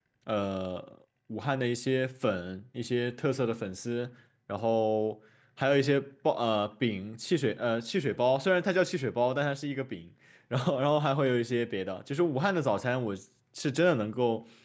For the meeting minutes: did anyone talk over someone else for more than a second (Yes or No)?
No